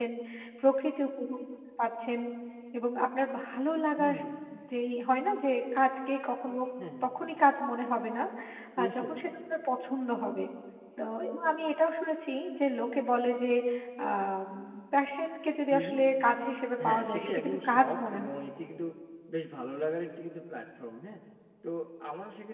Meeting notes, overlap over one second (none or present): present